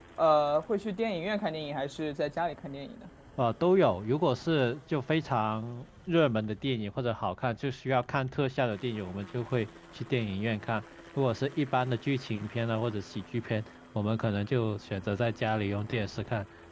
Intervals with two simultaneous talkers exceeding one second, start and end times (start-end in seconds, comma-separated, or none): none